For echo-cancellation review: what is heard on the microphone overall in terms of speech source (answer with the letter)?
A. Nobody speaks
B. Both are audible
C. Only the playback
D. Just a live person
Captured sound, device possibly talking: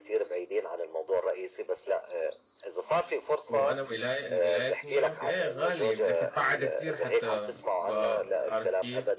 B